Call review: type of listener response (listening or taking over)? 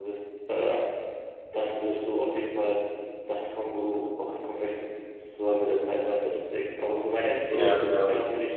listening